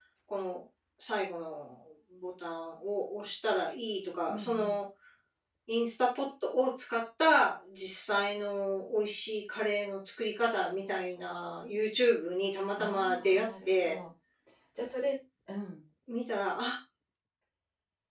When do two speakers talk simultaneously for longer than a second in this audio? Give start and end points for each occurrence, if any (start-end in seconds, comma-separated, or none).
12.8-14.0